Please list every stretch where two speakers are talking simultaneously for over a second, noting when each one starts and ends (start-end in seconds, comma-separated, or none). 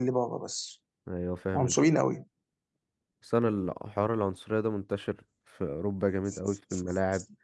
none